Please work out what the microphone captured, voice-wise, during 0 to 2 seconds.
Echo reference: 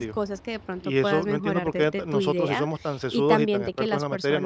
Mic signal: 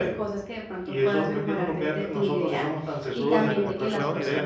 echo only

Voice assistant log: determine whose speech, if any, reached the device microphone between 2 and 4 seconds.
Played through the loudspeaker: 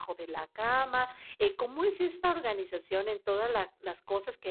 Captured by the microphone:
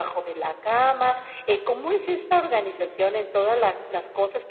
echo only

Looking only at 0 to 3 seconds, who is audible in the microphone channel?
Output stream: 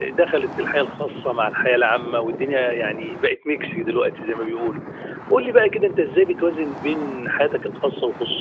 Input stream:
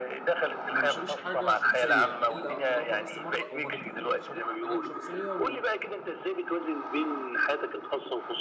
both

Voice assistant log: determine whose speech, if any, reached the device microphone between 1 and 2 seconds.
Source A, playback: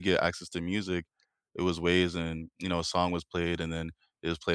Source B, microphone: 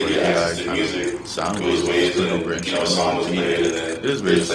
both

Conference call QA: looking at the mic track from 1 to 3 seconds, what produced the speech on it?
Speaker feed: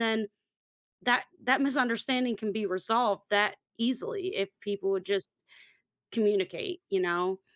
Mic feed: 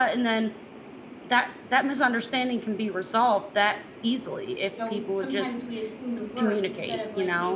echo only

